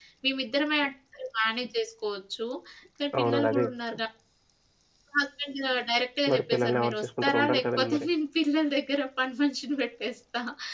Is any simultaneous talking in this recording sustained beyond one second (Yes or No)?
Yes